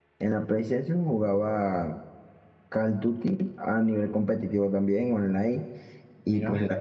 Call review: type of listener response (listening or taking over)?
listening